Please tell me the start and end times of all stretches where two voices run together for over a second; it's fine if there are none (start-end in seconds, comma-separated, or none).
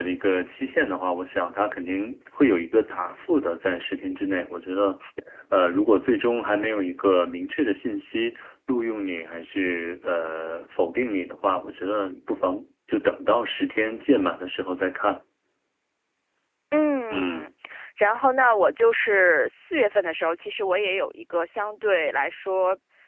none